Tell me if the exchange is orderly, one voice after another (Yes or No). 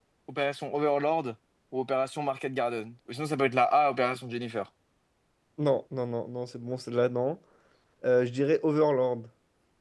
Yes